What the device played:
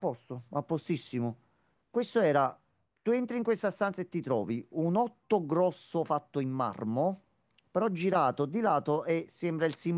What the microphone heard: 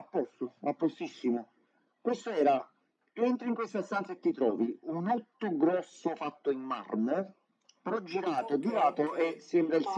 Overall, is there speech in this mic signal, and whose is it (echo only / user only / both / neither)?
both